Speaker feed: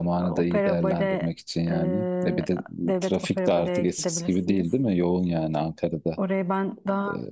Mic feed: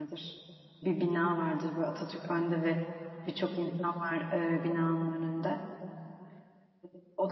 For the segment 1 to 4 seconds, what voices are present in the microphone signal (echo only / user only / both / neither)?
user only